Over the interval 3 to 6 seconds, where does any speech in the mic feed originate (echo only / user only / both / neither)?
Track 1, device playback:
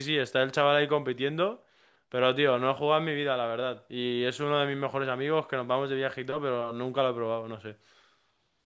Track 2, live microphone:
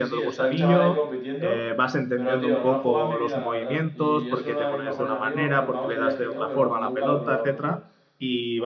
both